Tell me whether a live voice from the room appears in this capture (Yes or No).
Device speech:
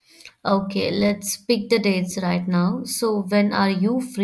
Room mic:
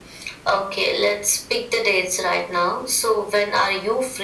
No